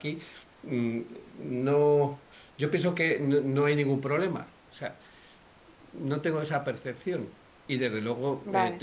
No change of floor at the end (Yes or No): Yes